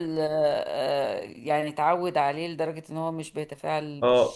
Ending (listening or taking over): taking over